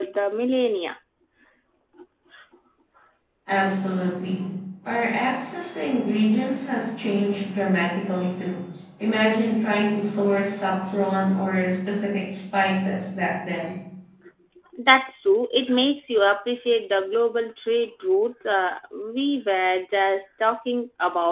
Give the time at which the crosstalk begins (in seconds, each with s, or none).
none